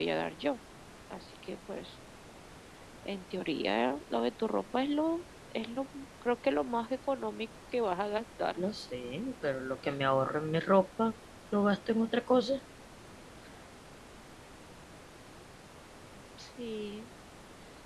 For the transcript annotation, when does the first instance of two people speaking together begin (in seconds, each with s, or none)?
none